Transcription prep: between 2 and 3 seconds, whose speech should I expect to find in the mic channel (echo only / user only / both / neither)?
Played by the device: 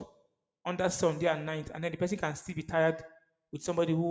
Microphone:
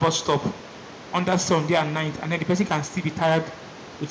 echo only